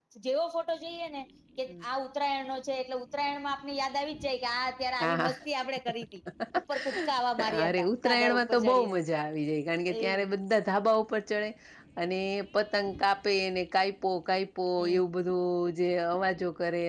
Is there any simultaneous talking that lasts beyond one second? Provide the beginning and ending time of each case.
7.4-9.0

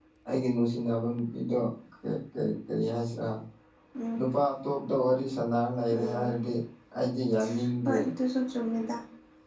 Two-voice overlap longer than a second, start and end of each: none

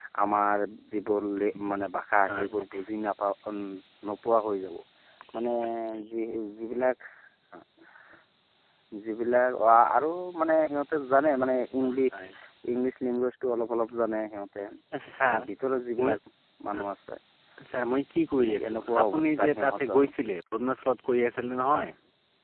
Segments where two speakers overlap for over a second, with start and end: 18.4-20.0

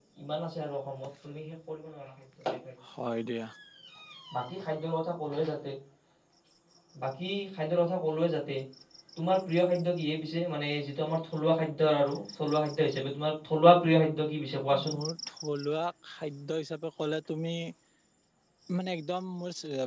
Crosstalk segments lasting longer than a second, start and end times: none

